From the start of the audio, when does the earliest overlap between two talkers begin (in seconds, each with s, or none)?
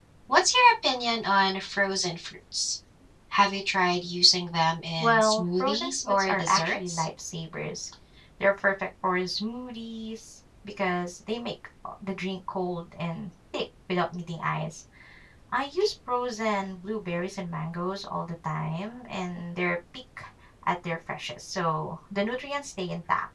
5.0 s